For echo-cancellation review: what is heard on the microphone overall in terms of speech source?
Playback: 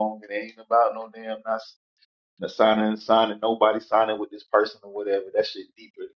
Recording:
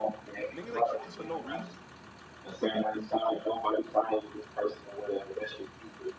both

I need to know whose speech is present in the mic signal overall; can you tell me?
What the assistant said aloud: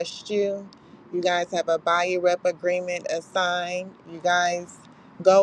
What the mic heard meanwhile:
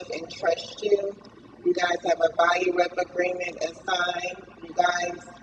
echo only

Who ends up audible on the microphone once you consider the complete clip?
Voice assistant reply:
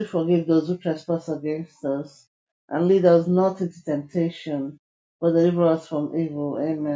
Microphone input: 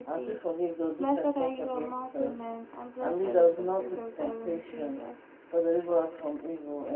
both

